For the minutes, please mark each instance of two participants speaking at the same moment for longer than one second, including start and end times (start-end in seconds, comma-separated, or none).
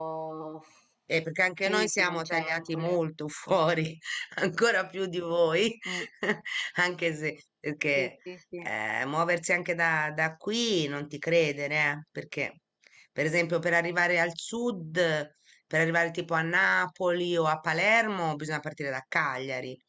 1.6-3.0